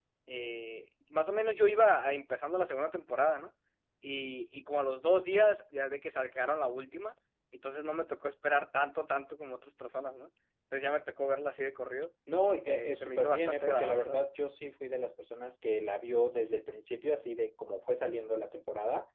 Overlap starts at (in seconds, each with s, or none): 12.7 s